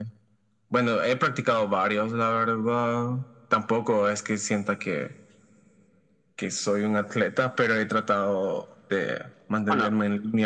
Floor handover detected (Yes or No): No